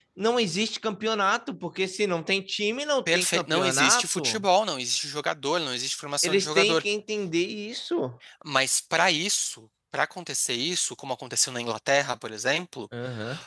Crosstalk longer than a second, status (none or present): present